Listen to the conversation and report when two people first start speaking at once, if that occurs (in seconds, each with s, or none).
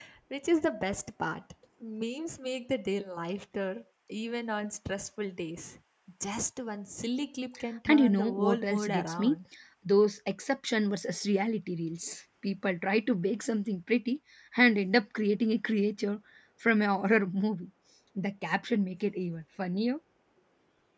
7.9 s